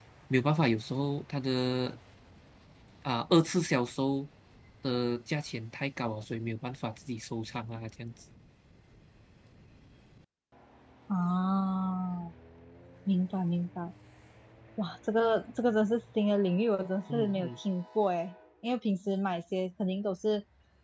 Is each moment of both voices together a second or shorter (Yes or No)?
Yes